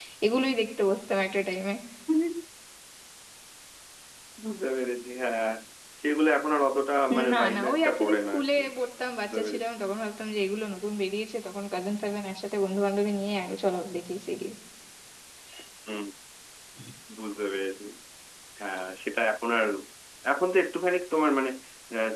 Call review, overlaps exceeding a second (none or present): present